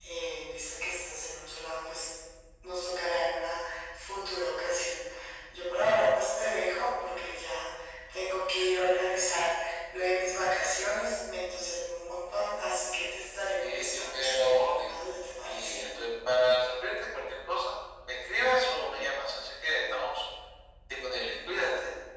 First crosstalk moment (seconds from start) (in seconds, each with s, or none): 13.6 s